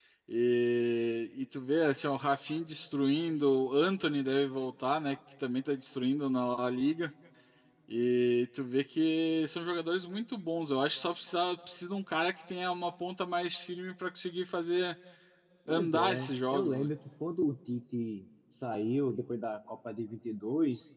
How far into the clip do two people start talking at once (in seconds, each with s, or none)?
15.7 s